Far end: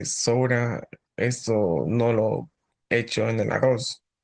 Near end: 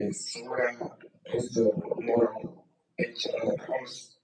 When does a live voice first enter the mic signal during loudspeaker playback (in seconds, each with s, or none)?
none